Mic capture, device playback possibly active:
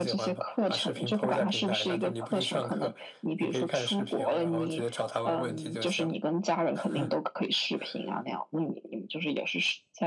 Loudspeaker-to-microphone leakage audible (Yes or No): Yes